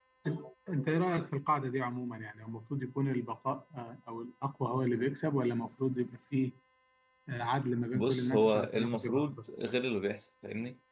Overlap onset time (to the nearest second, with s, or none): 8 s